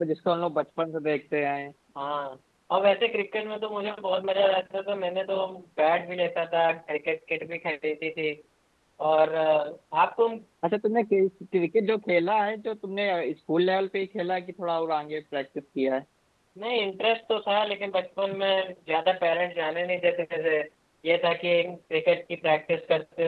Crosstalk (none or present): none